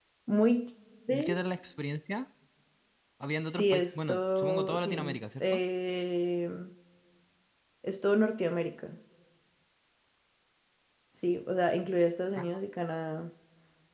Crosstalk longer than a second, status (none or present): present